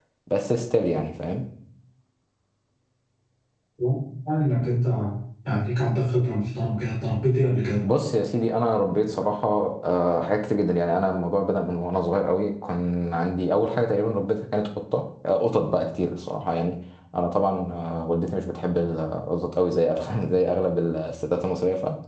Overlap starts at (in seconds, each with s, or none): none